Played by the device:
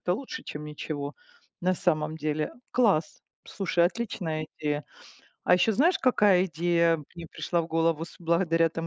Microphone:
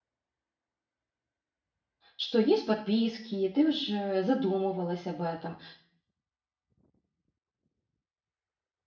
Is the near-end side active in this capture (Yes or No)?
Yes